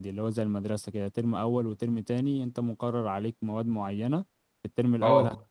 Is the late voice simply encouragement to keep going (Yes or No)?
Yes